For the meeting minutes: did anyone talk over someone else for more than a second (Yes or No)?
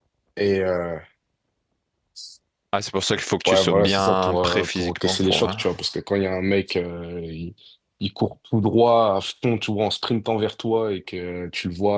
Yes